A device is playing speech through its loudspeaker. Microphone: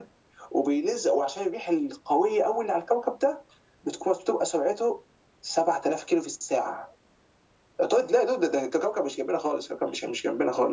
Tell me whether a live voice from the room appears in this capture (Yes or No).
No